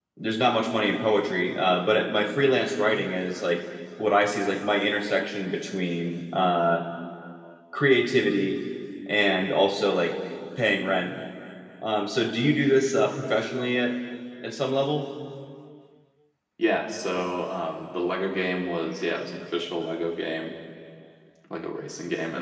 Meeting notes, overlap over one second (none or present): none